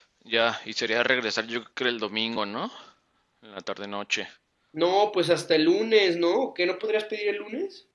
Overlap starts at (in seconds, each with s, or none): none